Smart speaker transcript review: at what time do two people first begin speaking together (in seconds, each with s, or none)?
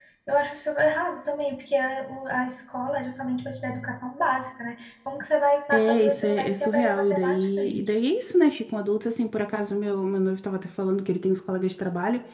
5.7 s